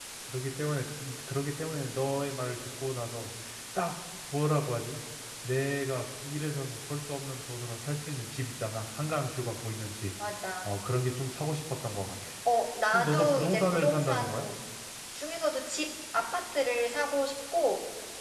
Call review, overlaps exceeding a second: present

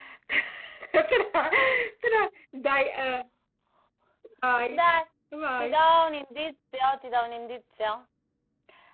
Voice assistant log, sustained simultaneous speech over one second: none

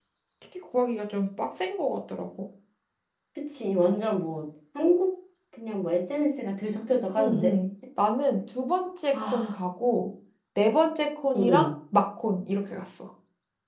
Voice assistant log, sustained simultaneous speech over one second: none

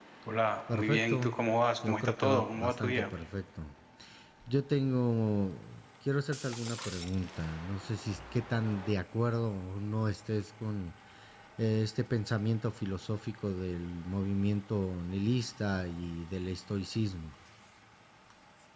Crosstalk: present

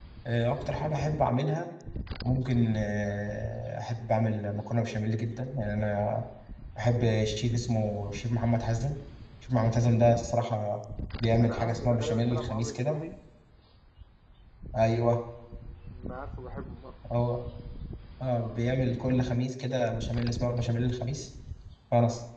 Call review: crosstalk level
present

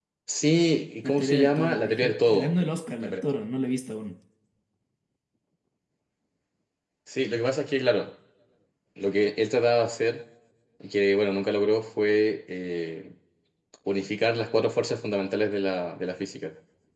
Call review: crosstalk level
present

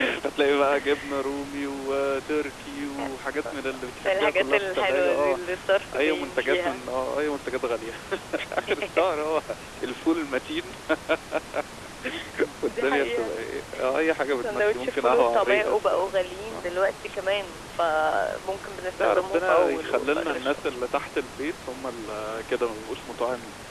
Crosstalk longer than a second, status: present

